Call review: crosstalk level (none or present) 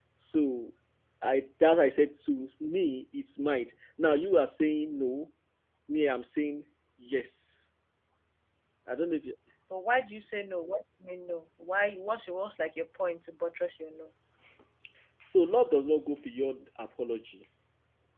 none